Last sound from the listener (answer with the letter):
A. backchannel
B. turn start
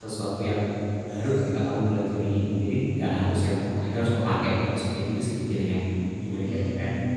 B